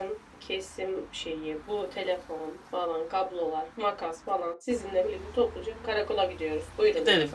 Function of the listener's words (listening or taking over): taking over